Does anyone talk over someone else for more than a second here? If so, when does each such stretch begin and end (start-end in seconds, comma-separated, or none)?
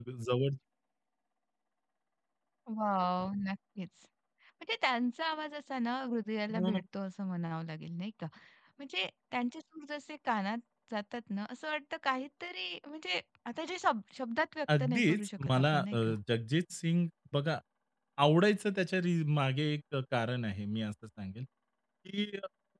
14.8-16.1